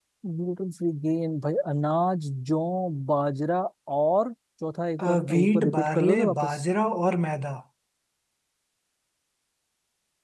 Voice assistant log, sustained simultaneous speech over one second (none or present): present